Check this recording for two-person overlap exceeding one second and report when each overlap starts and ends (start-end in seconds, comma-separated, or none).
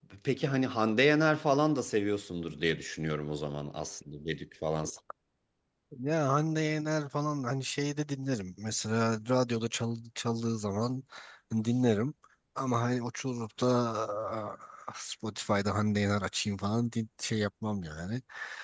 none